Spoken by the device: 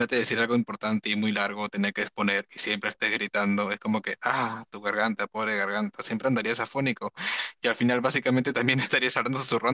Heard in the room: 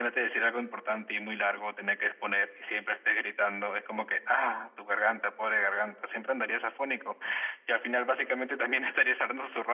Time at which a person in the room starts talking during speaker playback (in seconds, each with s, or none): none